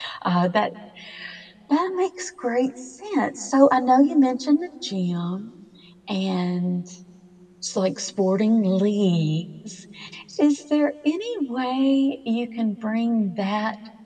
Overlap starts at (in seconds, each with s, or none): none